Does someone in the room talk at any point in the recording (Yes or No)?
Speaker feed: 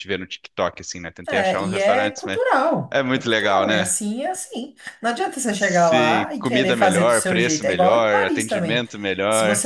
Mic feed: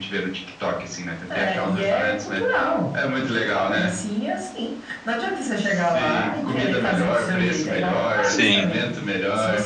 Yes